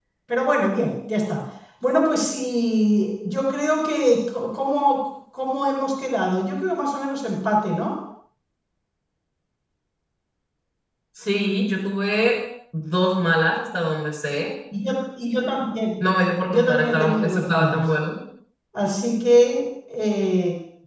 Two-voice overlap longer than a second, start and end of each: 16.5-17.8

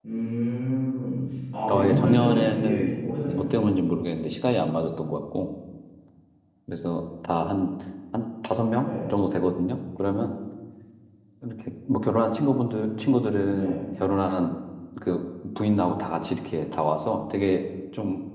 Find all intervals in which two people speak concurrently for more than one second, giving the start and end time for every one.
1.7-3.5

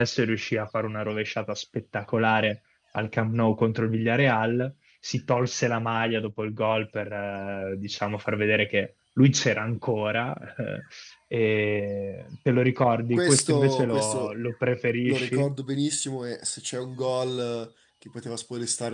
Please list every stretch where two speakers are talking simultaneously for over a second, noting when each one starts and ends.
13.1-14.3

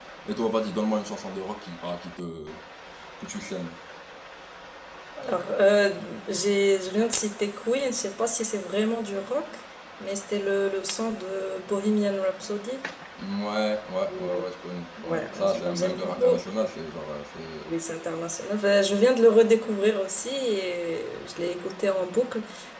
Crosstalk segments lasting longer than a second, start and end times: 15.0-16.4

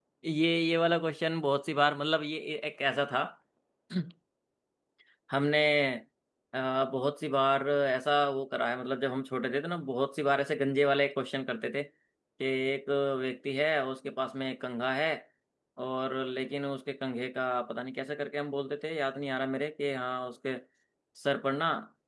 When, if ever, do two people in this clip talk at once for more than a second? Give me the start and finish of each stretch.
none

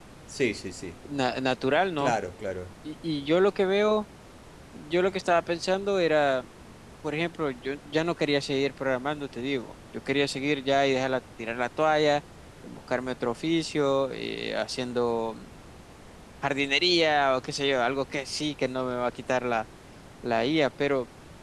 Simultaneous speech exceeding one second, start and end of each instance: none

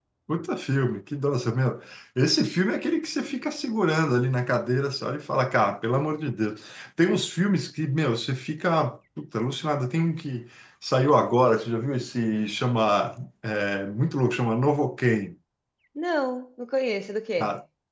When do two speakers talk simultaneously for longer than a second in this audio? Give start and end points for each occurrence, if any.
none

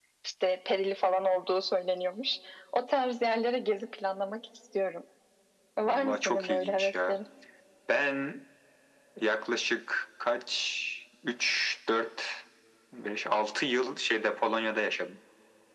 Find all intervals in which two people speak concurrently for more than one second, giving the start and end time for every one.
5.8-7.2

